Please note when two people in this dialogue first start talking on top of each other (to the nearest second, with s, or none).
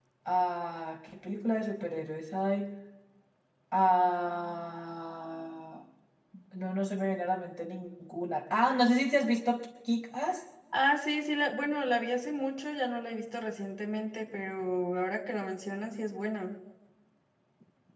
none